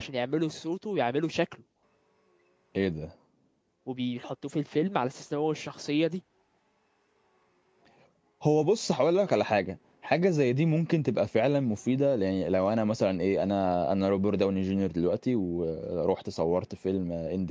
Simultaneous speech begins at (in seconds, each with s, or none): none